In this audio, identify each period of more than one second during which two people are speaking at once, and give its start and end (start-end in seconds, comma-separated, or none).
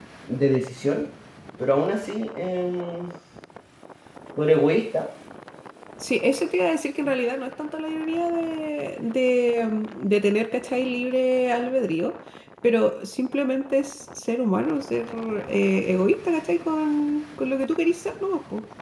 none